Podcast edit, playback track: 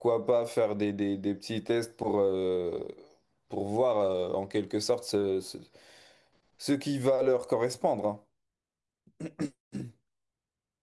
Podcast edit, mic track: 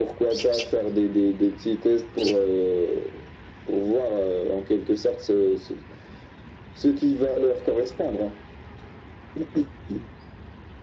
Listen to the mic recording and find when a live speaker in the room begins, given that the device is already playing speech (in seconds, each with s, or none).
none